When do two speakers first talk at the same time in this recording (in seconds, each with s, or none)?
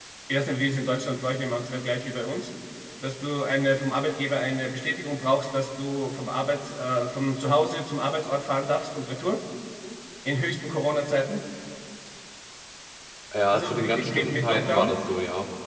13.5 s